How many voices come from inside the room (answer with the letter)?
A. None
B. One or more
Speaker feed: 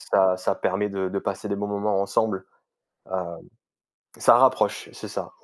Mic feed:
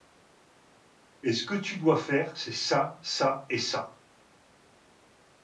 B